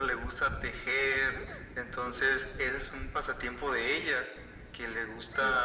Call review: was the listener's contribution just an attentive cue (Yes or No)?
Yes